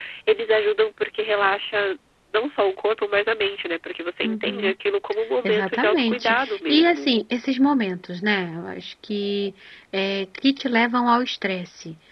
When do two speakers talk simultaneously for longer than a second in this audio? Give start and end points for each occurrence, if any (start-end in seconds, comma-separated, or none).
5.4-7.1